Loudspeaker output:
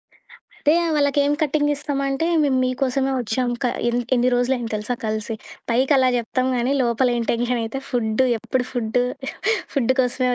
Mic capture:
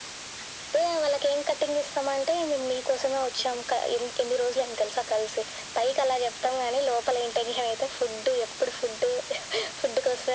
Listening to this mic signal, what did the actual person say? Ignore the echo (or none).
none